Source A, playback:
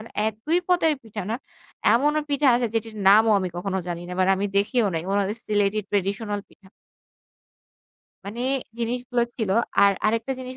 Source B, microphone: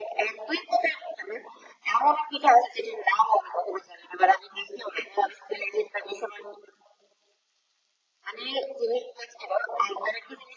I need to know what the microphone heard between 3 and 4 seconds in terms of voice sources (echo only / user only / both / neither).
echo only